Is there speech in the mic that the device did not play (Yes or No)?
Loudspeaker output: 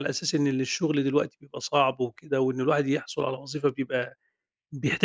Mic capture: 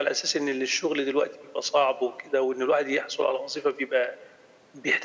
No